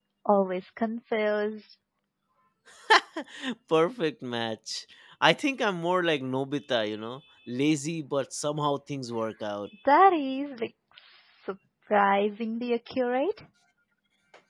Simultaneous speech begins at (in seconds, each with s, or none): none